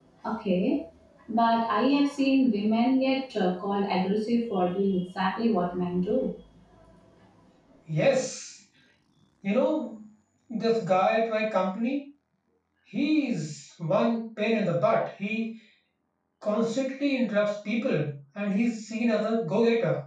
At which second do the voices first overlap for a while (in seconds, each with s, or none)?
none